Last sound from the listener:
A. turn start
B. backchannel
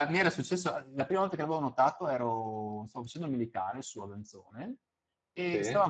B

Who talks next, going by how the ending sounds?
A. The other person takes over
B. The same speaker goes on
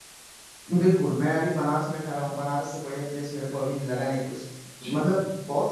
B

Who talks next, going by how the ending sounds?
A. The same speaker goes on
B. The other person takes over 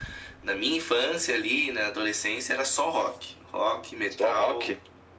A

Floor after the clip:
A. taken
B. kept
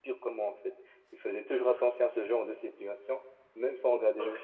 A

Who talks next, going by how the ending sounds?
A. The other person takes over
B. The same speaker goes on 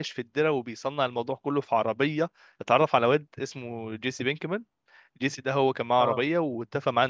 B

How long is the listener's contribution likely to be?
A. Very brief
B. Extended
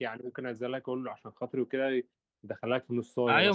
B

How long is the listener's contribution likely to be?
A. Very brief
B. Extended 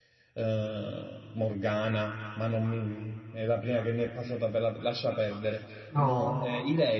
A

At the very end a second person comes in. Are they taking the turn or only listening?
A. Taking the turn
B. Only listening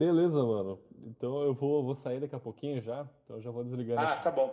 A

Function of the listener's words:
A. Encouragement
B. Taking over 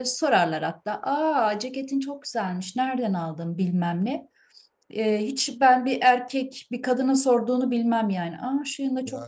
B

